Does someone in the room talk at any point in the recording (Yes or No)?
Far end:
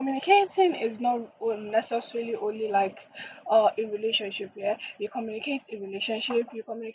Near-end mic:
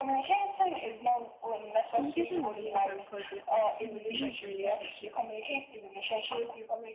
Yes